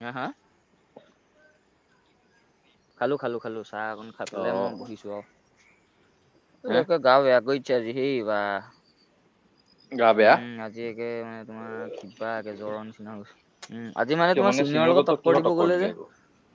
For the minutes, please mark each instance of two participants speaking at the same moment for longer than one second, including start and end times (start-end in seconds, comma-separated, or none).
14.3-15.9